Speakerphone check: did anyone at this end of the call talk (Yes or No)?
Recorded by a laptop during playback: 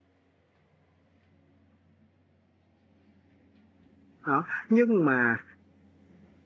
Yes